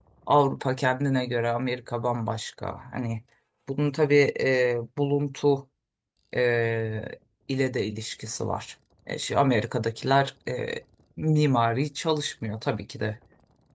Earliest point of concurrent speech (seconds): none

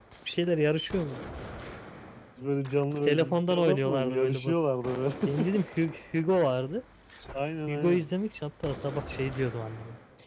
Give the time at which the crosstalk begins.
3.1 s

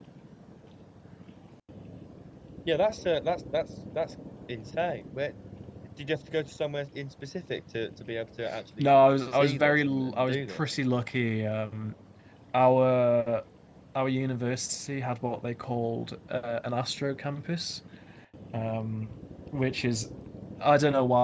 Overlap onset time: 9.3 s

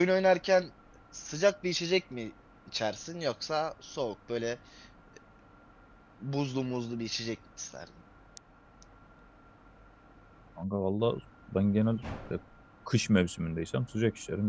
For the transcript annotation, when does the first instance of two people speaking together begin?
none

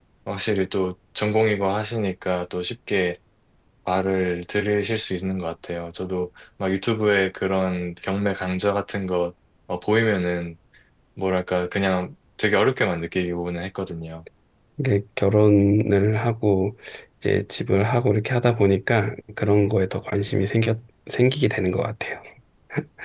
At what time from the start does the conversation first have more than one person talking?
none

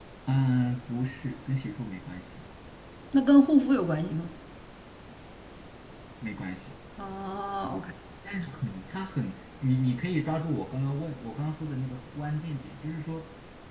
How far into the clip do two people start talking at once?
none

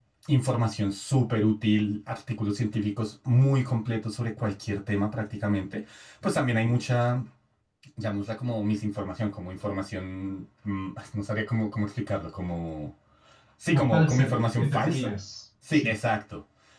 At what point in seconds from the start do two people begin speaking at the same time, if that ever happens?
13.7 s

